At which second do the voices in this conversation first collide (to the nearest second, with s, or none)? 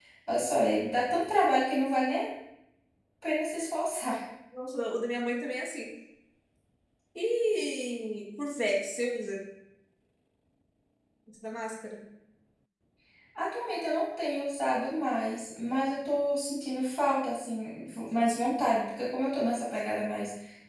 none